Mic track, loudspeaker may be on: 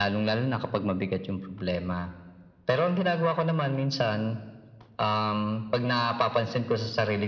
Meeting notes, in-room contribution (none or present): none